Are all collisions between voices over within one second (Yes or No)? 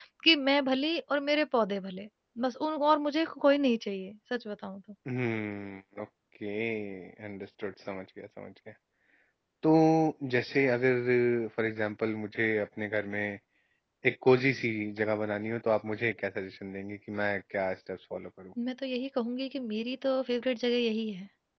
Yes